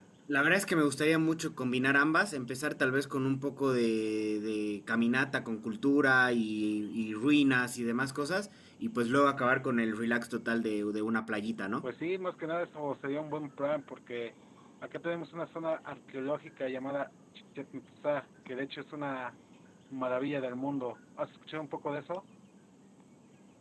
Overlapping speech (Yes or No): No